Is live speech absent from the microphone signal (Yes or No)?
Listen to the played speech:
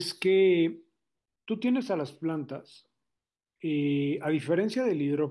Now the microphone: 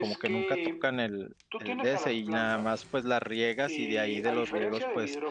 No